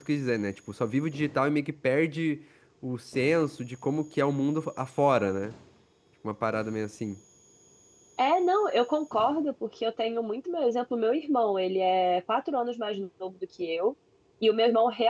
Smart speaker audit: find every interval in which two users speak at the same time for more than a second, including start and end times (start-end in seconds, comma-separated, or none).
none